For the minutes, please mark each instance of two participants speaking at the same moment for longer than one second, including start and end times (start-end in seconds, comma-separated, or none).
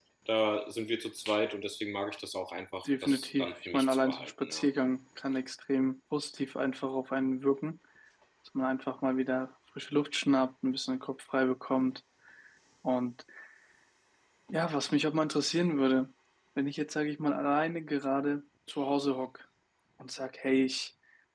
2.9-4.6